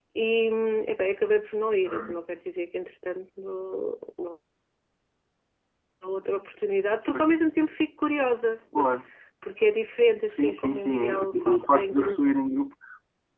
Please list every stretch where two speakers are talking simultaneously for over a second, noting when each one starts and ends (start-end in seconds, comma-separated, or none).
10.3-12.2